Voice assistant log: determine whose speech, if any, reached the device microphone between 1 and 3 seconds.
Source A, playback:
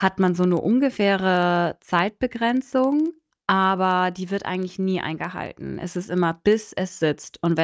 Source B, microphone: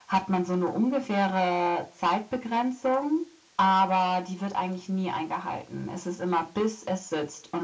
echo only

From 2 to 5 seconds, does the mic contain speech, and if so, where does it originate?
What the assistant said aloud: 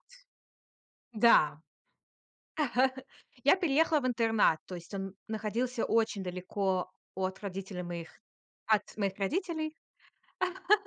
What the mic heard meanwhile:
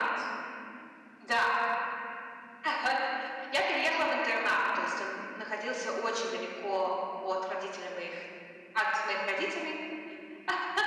echo only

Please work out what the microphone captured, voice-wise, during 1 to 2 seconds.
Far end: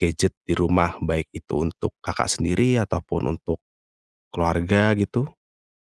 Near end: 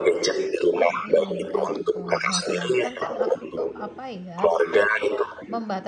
both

